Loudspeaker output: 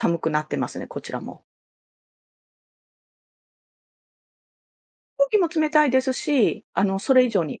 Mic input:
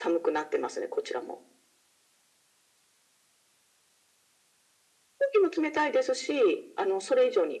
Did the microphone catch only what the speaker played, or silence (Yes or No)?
Yes